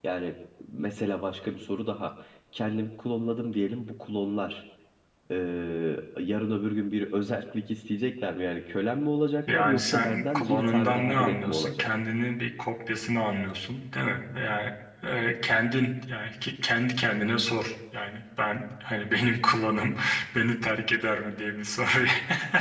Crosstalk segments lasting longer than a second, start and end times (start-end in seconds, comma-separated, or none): 9.5-11.8